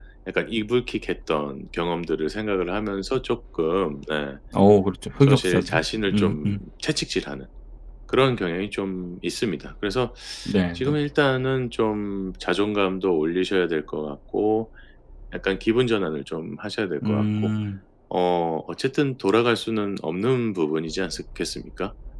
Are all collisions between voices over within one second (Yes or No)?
No